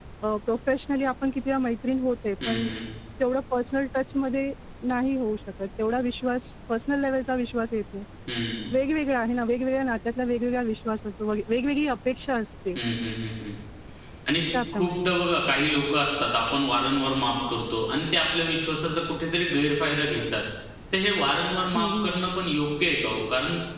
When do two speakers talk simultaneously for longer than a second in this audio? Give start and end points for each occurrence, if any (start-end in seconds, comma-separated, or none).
none